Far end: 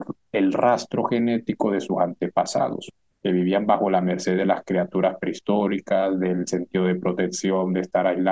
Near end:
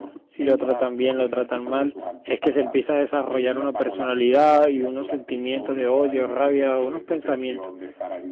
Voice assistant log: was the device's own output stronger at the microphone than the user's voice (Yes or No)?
No